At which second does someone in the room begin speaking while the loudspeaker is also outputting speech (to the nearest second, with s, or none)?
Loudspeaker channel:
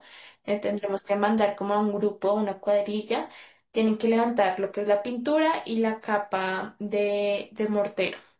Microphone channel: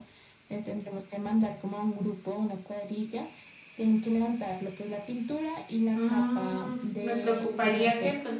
6 s